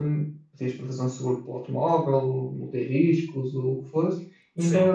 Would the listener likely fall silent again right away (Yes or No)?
Yes